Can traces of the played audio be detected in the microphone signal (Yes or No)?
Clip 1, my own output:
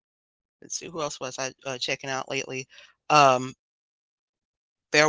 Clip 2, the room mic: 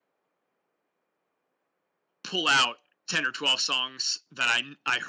No